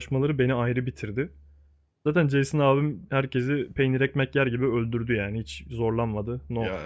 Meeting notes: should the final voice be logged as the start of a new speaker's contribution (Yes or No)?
Yes